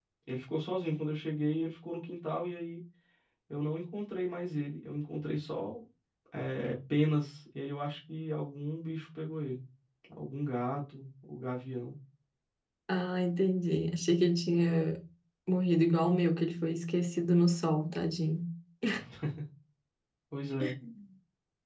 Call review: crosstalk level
none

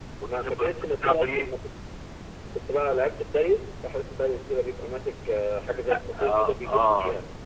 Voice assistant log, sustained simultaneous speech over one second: present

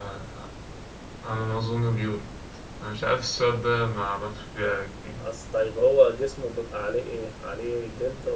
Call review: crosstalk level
none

